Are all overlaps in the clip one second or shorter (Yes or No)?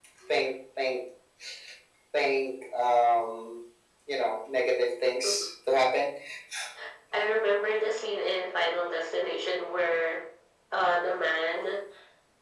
Yes